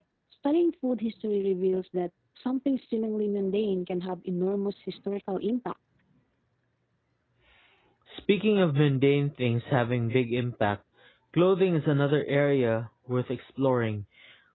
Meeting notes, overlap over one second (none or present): none